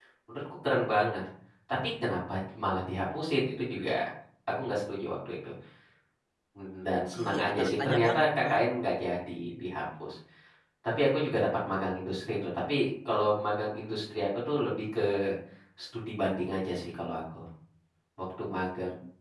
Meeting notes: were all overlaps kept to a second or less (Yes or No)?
No